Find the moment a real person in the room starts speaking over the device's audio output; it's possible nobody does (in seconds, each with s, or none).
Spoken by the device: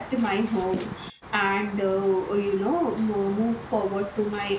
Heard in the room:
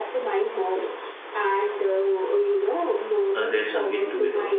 3.3 s